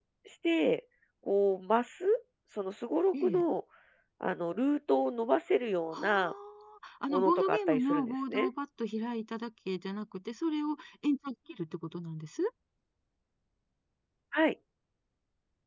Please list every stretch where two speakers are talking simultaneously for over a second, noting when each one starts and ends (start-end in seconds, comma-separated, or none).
7.1-8.5